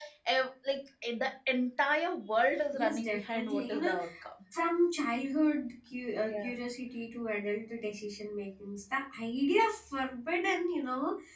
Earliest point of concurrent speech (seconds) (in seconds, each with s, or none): 2.7 s